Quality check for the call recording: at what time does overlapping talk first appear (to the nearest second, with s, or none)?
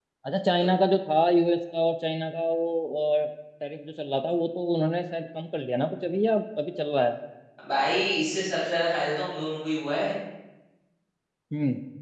none